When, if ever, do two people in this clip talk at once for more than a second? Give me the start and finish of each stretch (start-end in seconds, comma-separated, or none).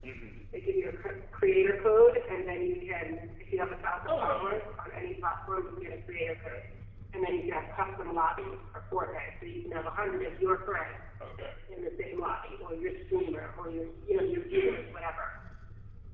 none